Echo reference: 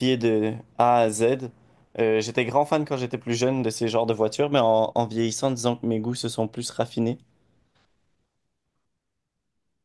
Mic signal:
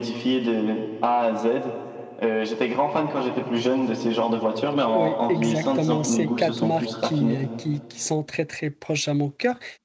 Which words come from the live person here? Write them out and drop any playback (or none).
Oui, exactement. Ces quatre marques qui, euh, qui, qui sont très très proches à mon cœur.